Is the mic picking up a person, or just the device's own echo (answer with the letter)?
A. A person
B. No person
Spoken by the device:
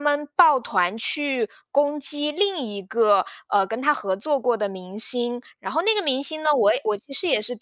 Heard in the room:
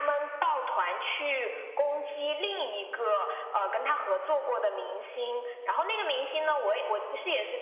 B